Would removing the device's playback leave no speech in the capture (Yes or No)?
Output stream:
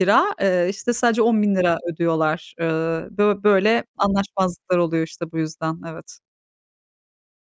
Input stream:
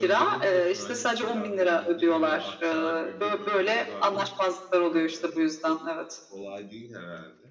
No